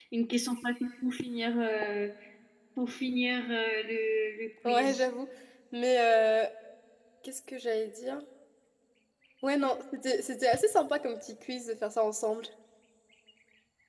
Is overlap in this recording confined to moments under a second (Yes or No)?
Yes